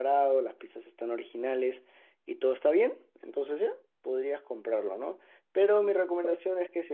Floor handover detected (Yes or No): No